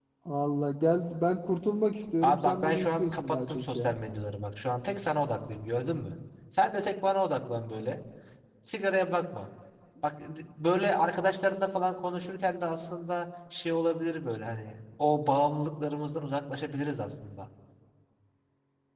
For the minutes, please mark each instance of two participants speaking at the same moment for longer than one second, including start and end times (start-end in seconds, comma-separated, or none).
2.2-3.9